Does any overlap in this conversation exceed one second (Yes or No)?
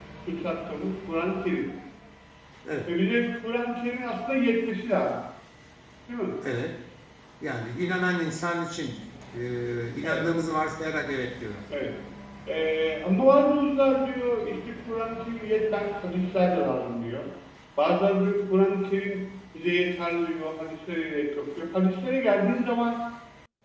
No